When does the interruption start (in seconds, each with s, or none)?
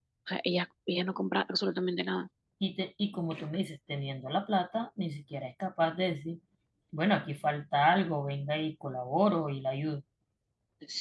none